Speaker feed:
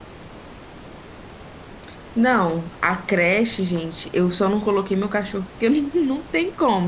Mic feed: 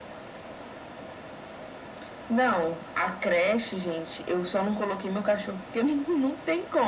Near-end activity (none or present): none